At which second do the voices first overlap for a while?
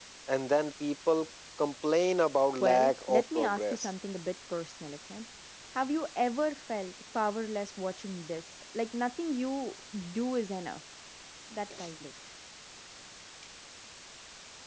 2.6 s

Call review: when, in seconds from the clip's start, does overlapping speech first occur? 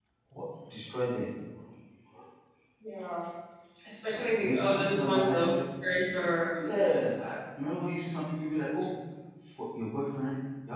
4.2 s

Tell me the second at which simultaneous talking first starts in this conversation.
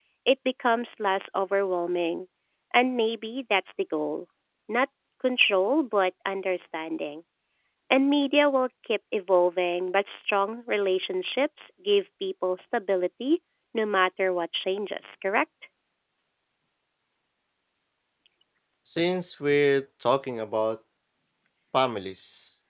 none

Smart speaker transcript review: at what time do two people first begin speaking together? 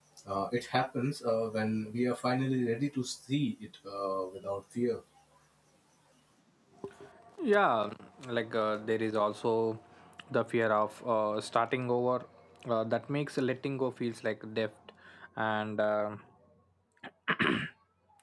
none

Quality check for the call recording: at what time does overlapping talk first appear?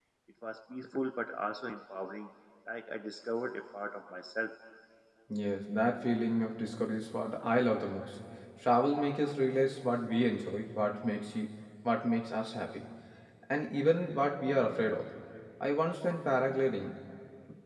none

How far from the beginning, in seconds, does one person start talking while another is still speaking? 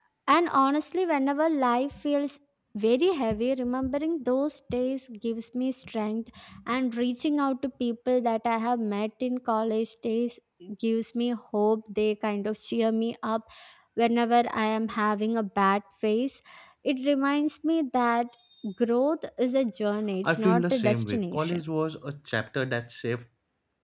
20.2 s

